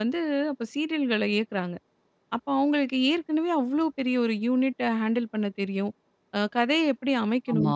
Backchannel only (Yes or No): Yes